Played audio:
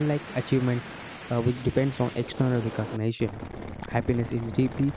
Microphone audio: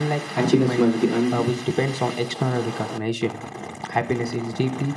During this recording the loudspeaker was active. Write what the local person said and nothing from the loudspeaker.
happiness must be un-

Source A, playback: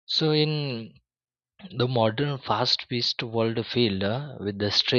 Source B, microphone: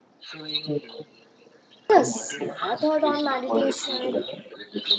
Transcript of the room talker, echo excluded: Yes, my thought on meditation it,

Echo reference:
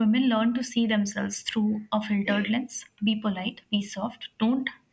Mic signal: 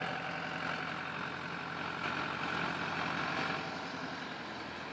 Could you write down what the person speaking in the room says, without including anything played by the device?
none

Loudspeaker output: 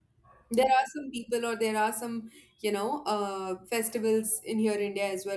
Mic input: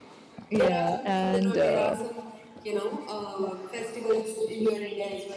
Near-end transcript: yeah and uh,

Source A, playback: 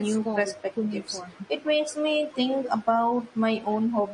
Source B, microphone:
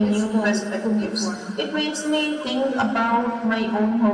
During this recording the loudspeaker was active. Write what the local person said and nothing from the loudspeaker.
none

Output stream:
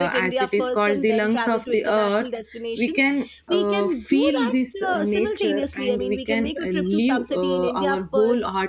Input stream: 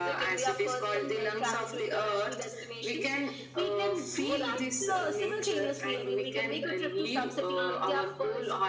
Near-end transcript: Uh,

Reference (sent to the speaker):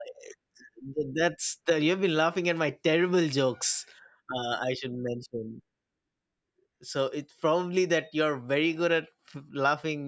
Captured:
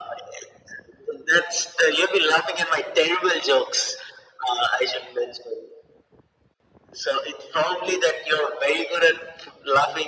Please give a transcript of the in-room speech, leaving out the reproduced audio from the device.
none

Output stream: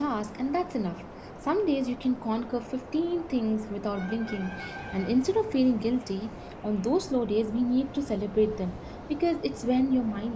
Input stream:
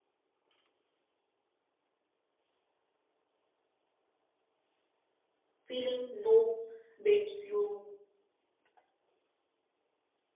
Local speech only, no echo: feeling no babes you

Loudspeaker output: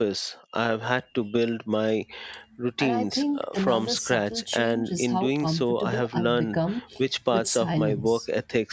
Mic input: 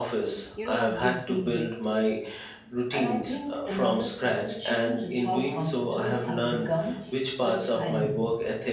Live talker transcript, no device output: You know what gives me hope?

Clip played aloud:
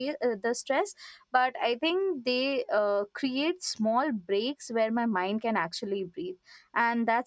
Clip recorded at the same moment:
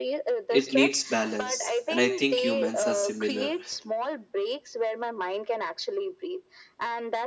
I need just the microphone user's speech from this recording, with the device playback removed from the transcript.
it needs balance and i think humans are similar

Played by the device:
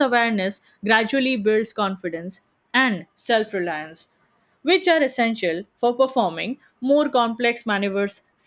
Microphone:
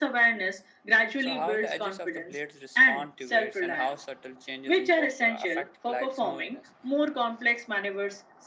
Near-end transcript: So, how the edges of the blades respond to weights, and how subtle changes in posture affect glide smoothness,

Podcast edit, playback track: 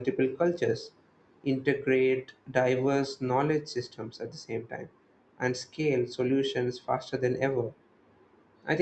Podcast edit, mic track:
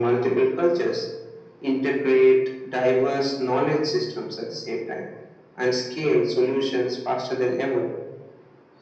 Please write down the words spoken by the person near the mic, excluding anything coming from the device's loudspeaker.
none

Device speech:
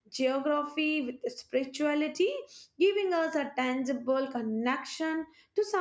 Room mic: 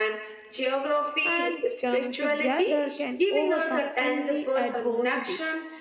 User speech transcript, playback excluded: and come together can overcome any adversity.

